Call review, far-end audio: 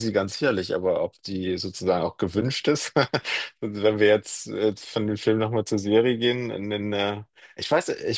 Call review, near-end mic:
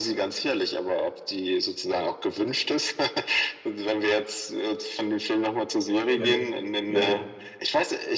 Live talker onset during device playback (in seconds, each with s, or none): 6.1 s